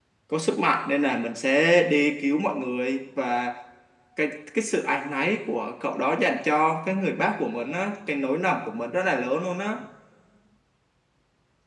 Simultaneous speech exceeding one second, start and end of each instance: none

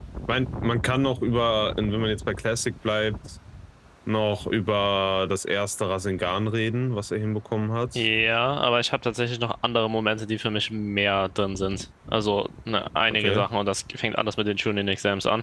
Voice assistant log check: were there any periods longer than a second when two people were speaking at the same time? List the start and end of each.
none

